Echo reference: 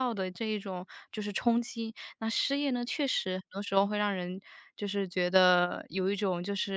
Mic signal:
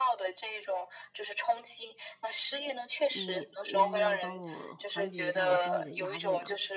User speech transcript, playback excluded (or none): 你能不能帮我缓解一下我心里的压力啊？